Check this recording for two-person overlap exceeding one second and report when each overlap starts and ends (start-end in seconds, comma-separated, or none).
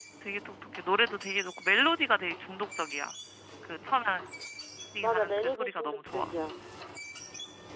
5.1-6.3